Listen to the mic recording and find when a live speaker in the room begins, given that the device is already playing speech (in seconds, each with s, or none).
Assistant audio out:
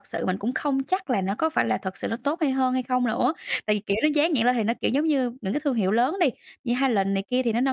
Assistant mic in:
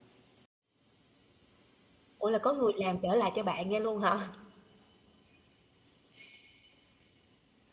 2.2 s